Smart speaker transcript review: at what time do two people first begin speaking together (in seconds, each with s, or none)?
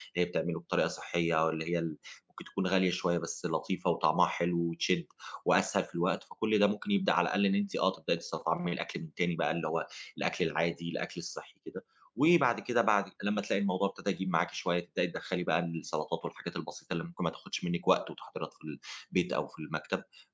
none